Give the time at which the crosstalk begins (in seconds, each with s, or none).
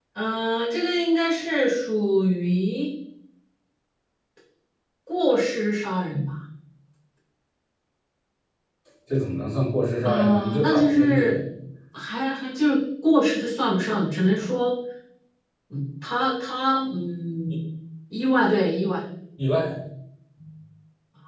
10.0 s